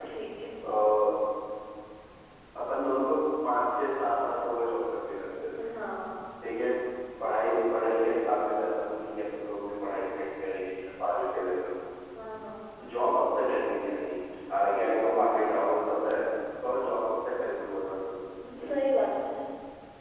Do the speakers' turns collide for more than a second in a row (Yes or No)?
No